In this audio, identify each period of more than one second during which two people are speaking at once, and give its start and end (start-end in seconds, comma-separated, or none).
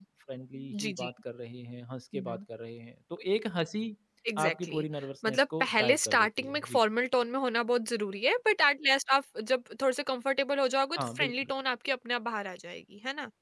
5.2-6.8